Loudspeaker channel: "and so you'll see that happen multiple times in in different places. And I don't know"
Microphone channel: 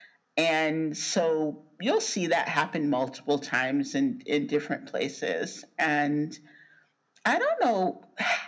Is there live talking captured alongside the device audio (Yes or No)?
No